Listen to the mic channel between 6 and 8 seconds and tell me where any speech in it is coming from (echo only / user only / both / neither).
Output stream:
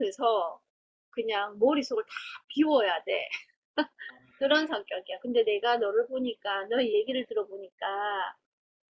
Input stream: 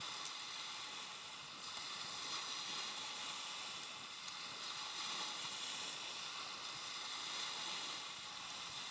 neither